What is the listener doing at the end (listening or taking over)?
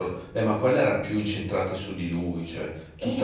taking over